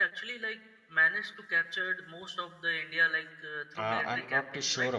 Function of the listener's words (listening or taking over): taking over